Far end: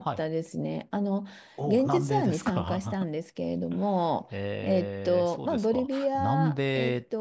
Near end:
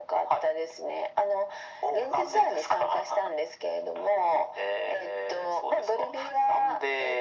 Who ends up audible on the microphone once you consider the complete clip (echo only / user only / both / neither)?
echo only